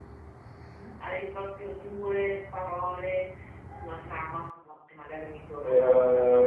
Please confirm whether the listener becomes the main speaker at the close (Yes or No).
Yes